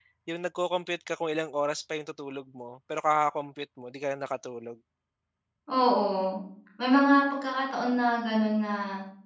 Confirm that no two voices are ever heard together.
Yes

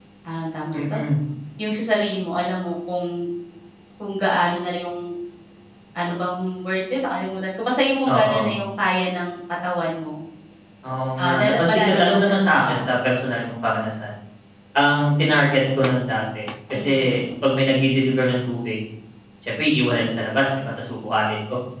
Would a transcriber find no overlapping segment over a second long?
No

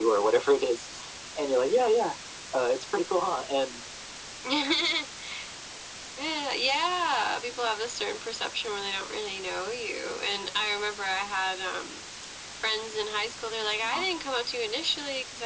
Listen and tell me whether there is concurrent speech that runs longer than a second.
No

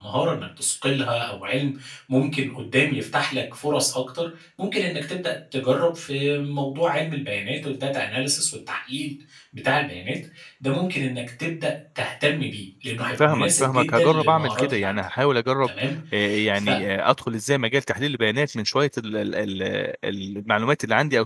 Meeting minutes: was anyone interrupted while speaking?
Yes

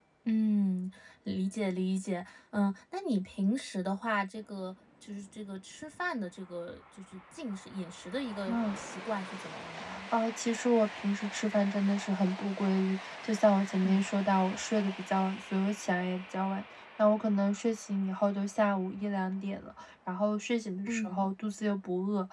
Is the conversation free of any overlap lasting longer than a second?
Yes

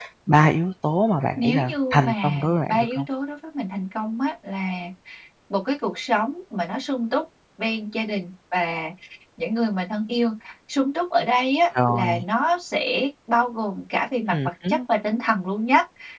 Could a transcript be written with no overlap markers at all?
No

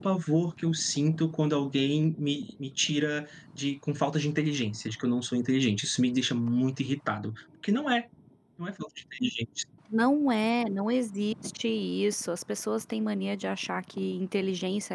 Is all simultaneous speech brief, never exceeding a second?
Yes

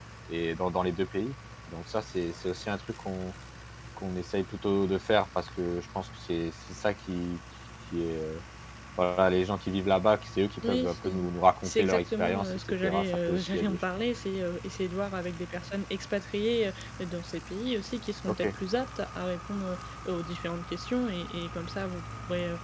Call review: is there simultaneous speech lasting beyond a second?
Yes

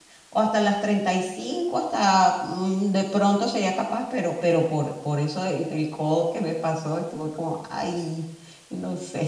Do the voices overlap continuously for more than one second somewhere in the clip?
No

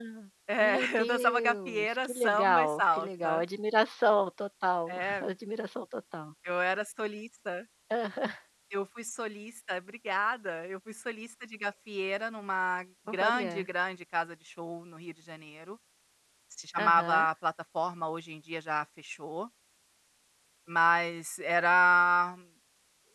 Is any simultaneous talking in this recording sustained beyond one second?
Yes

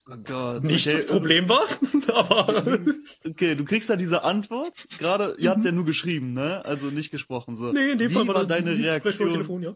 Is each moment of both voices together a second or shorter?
No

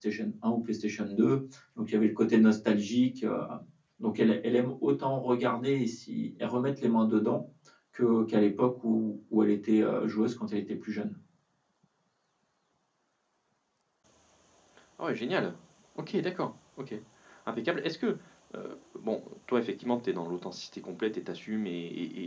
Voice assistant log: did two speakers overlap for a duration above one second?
No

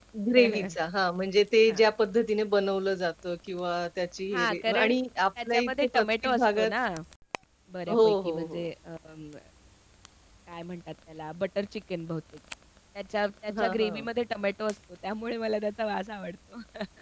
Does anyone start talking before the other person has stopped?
Yes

